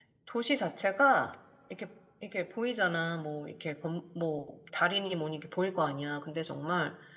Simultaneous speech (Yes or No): No